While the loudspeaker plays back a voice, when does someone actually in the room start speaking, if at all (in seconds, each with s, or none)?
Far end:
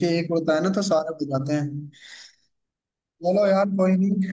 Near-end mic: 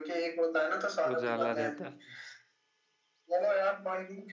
1.1 s